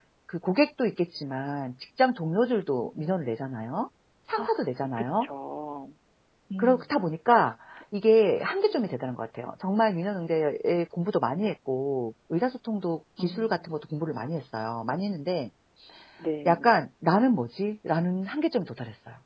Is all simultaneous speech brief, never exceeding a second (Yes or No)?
Yes